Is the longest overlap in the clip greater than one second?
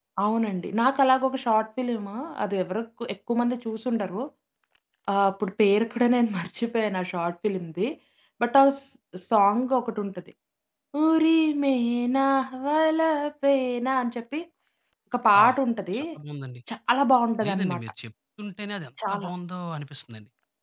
No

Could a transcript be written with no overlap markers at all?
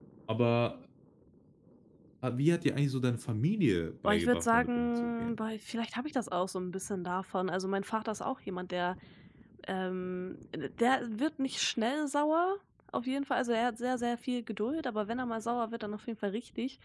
No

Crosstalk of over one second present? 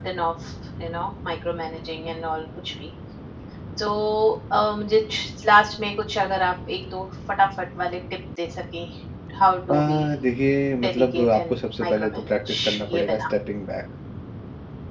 Yes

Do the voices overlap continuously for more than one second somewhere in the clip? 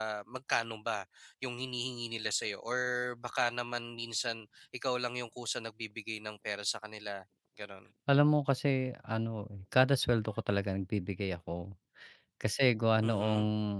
No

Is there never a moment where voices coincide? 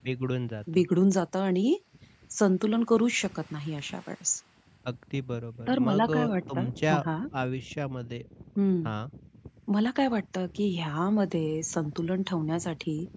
No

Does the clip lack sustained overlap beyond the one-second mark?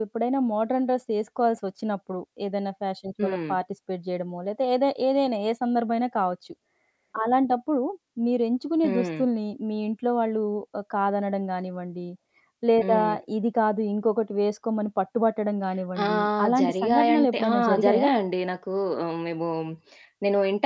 No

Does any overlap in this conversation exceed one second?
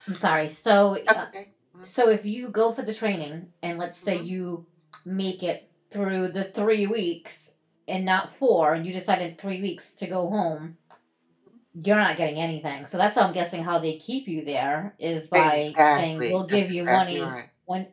Yes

